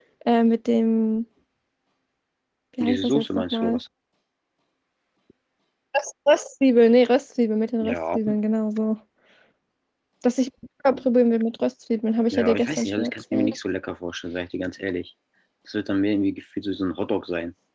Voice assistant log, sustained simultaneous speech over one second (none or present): present